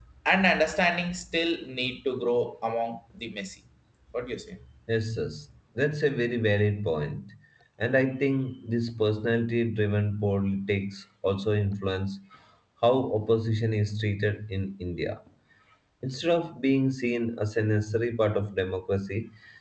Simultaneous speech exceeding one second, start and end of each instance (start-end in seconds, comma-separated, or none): none